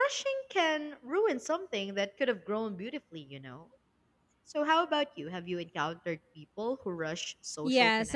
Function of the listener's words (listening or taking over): taking over